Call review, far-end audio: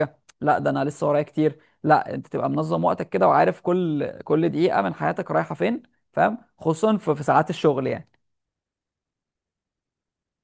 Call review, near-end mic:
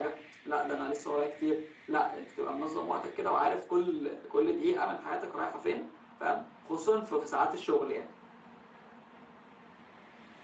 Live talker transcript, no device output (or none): none